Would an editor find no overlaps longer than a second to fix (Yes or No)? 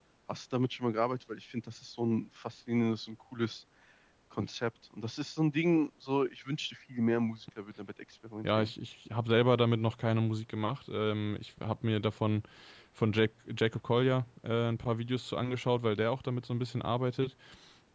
Yes